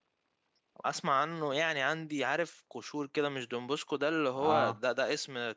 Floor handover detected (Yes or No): No